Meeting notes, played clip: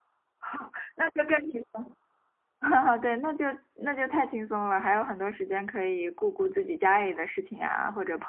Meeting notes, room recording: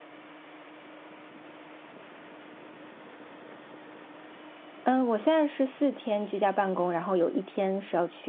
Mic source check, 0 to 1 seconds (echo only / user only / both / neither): neither